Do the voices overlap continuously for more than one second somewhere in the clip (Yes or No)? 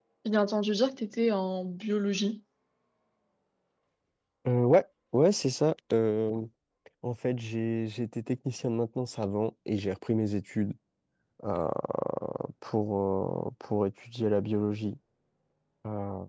No